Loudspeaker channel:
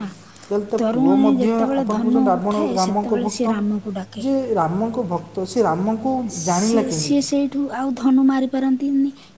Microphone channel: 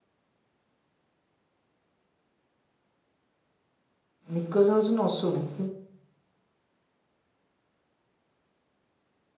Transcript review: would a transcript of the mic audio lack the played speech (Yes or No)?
Yes